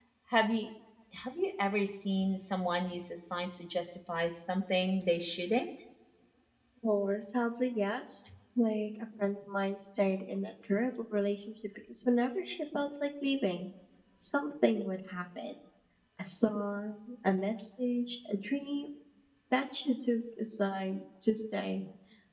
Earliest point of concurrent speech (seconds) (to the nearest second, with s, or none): none